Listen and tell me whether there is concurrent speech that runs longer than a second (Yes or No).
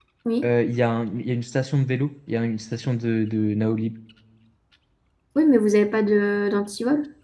No